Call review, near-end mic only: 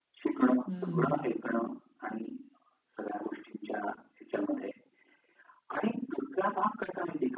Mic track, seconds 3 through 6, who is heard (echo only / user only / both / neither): echo only